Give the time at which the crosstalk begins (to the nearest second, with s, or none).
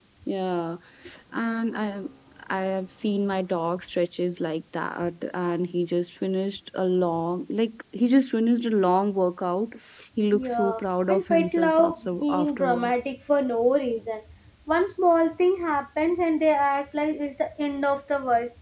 10 s